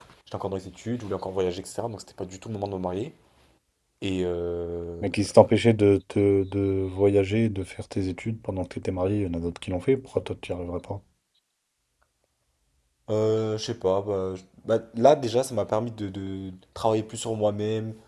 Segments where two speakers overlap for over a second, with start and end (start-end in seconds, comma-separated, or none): none